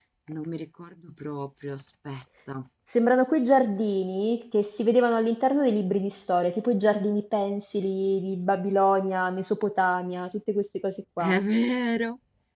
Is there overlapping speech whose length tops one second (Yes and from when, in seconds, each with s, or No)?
No